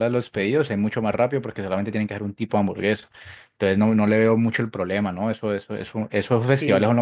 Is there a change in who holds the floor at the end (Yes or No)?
Yes